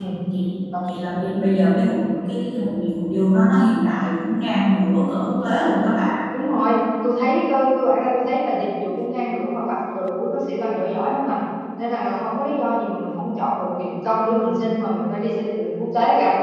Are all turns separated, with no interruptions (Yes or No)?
Yes